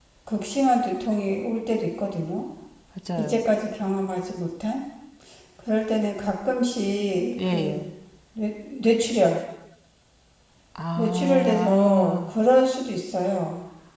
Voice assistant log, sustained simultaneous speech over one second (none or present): present